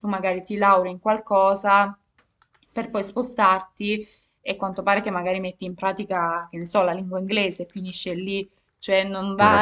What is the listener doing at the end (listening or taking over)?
listening